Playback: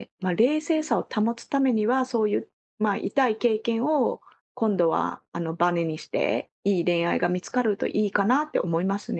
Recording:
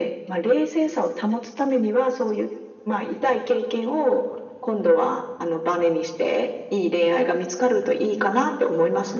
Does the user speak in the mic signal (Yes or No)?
No